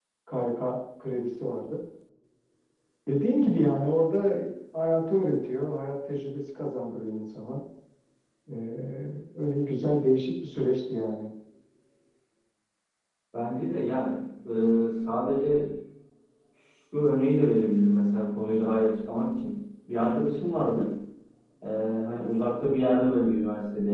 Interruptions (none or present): none